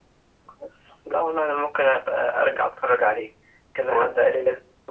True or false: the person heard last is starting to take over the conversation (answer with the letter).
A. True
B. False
B